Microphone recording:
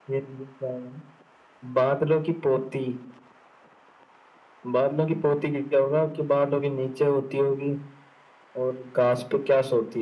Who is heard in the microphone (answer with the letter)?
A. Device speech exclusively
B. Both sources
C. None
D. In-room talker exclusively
A